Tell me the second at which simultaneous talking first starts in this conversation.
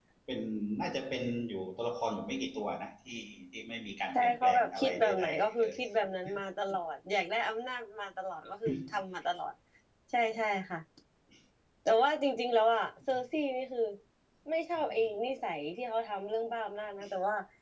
4 s

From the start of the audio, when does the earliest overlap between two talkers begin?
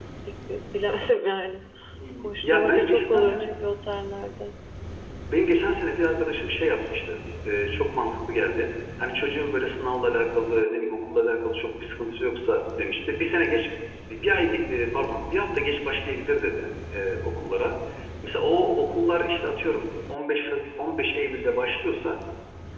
2 s

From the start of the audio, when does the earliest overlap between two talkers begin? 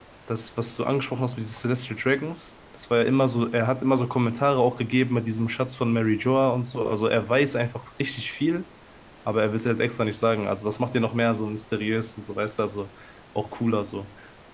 none

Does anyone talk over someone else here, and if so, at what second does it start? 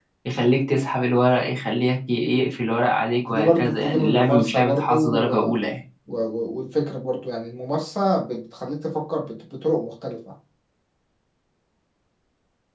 3 s

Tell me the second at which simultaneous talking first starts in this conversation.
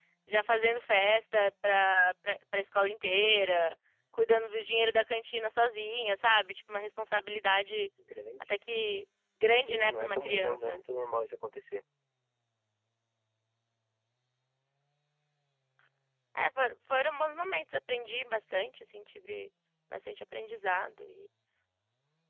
10 s

